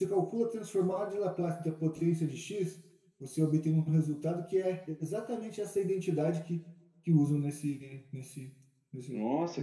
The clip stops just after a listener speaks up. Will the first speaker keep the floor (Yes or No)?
No